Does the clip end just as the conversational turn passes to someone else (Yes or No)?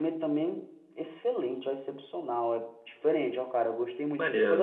No